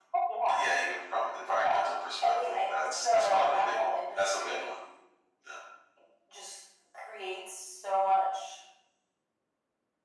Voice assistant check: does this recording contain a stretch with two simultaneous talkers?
Yes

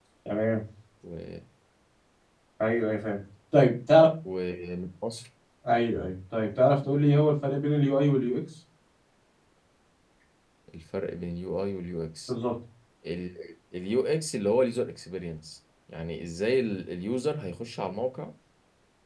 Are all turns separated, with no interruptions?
Yes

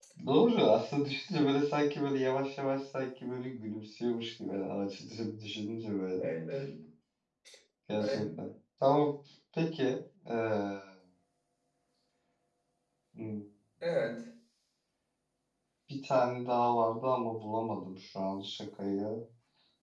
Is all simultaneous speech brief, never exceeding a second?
Yes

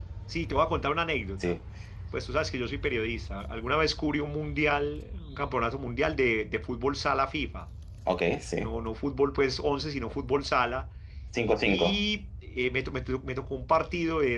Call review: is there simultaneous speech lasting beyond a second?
No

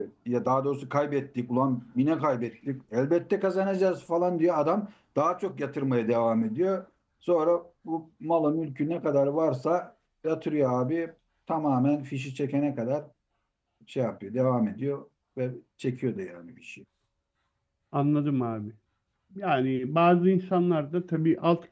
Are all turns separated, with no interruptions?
Yes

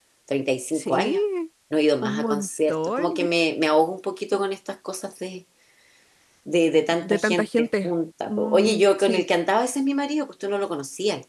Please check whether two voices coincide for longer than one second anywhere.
Yes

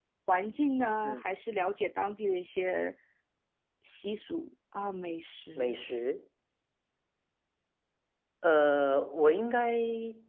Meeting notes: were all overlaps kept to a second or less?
Yes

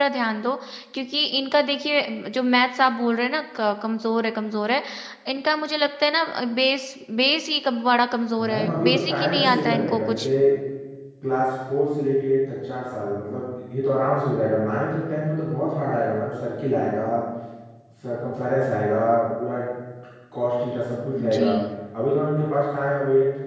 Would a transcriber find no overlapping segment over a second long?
No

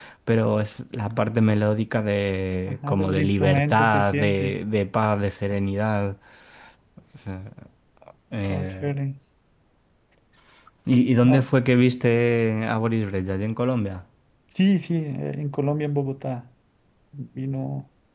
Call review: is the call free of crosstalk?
No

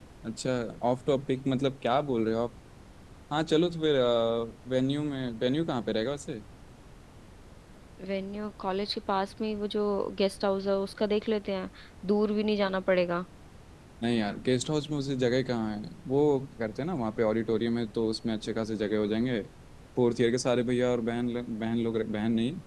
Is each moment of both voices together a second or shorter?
Yes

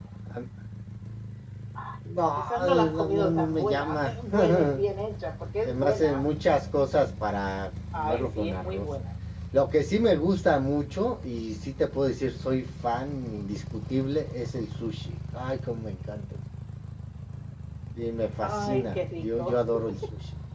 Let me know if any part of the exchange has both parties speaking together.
Yes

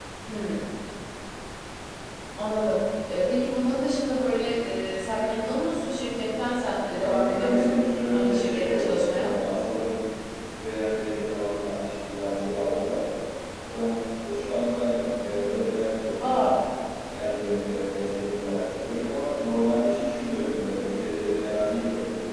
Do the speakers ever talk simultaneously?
Yes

